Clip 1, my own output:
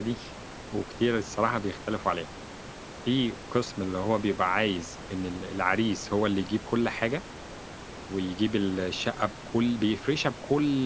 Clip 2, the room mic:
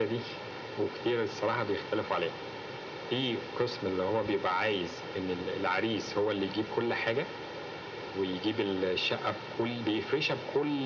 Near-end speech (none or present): none